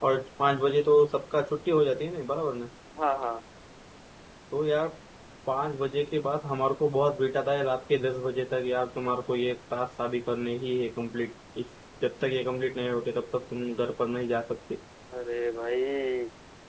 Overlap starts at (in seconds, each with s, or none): none